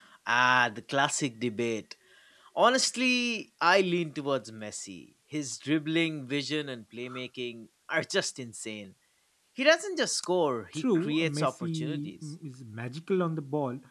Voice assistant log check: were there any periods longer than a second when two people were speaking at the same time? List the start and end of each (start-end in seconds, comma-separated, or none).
10.7-12.1